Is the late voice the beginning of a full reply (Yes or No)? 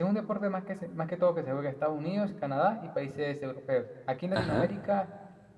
No